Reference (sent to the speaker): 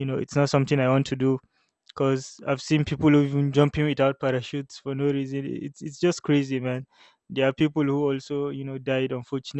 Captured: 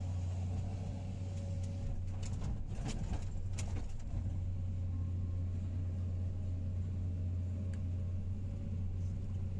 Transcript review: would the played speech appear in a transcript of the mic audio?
No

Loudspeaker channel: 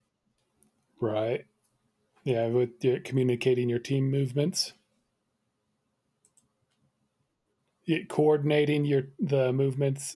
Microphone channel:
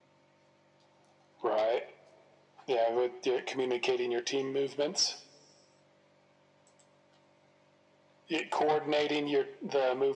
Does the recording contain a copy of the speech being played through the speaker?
Yes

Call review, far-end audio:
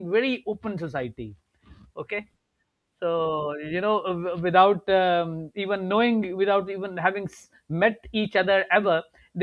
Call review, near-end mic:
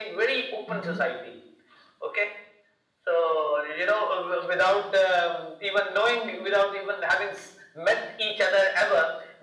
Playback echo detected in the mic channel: Yes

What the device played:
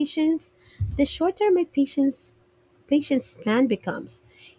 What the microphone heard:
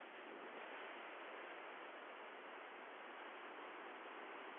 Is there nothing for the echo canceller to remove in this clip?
Yes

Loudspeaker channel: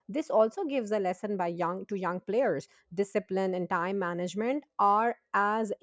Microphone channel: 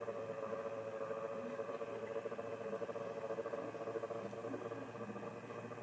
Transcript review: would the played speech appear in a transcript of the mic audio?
No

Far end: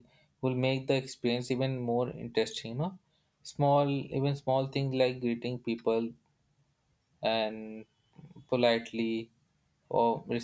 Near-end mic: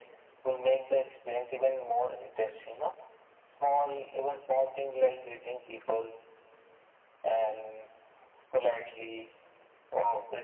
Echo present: Yes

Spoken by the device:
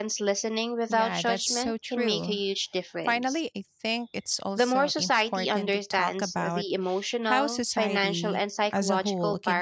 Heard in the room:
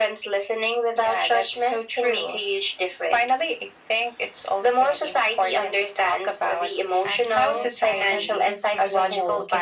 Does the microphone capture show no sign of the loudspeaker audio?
No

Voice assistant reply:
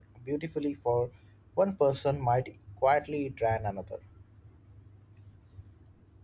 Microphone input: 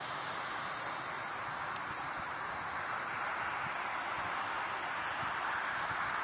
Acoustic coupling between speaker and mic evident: No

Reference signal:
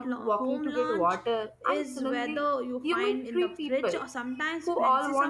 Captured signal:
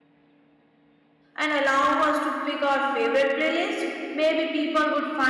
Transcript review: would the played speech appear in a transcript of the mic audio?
No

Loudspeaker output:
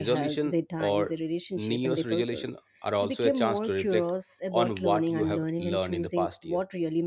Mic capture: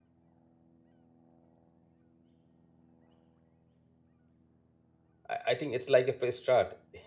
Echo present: No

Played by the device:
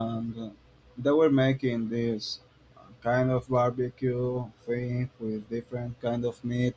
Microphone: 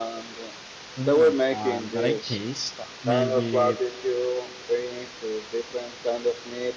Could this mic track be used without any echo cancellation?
No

